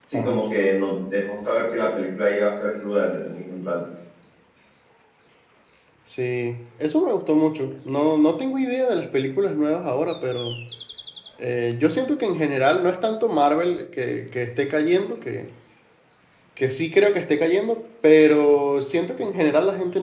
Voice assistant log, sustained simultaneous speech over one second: none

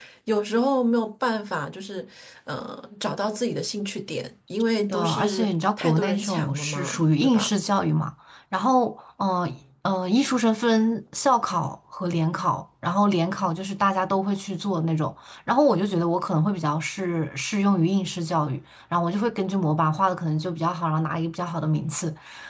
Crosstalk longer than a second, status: present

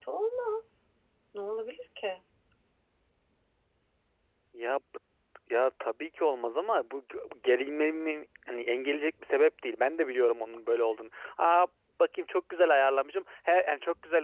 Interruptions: none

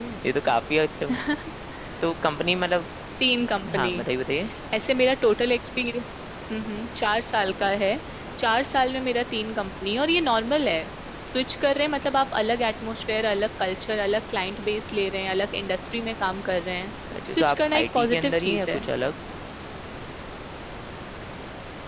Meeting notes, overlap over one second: present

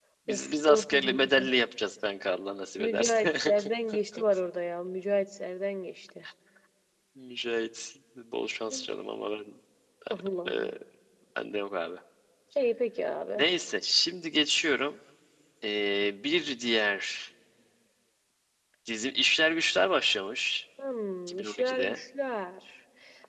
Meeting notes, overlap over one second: present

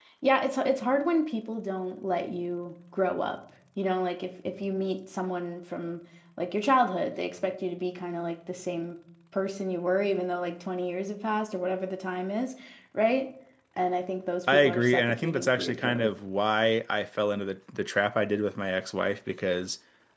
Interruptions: present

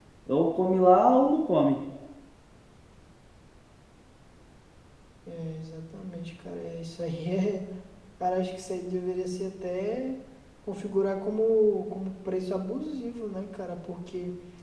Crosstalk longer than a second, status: none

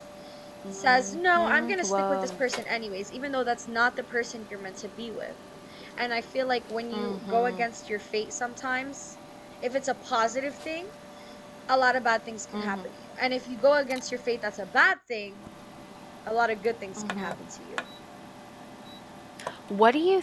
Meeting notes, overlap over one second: present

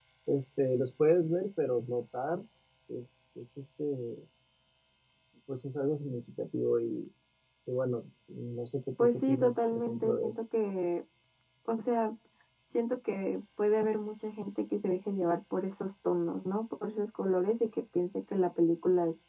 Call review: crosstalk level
present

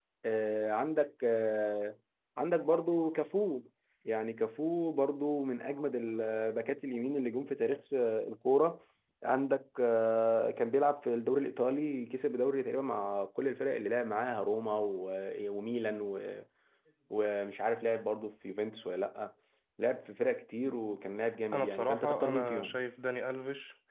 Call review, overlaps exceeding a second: present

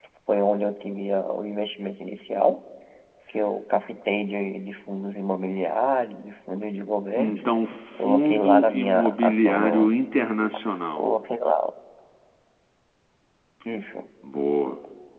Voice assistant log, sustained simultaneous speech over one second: present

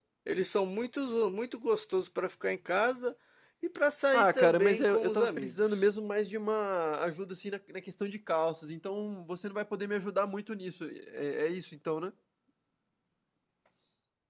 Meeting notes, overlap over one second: present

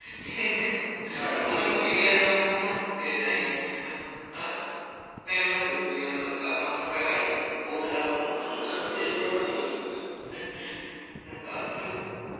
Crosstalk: present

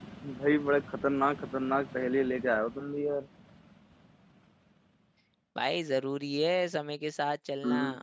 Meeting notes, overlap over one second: none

